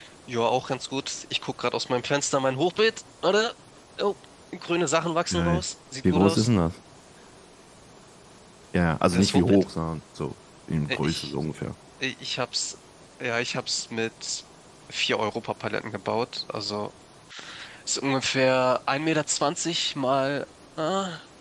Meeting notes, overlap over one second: none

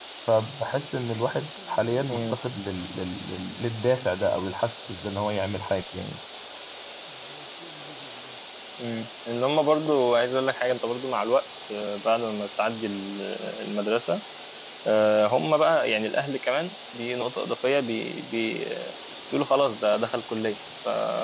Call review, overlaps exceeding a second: none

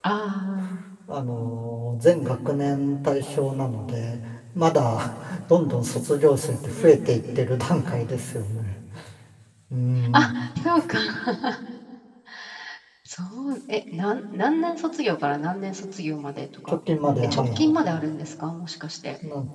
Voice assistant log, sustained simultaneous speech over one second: none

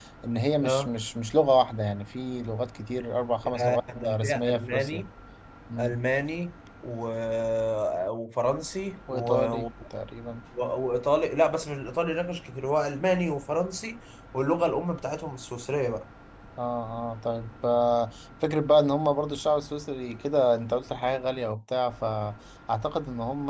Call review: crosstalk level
present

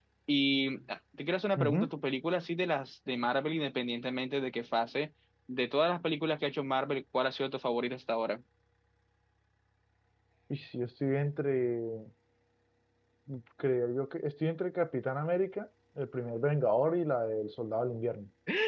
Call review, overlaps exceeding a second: none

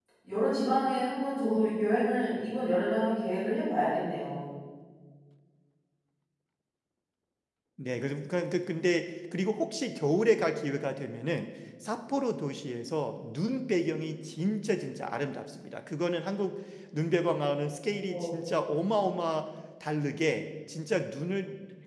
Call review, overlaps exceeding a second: none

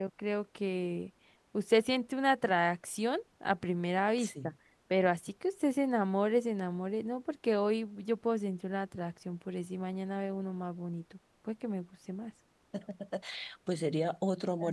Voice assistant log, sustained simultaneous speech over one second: none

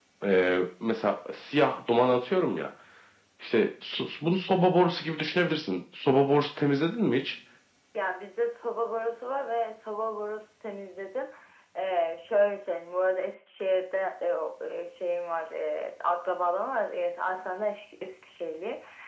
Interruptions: none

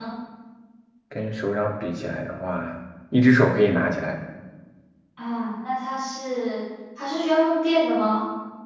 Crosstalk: none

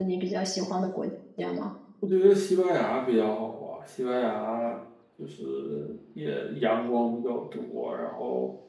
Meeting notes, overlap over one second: none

